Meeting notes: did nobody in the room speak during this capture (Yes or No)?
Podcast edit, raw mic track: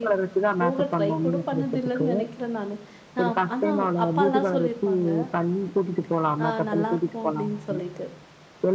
No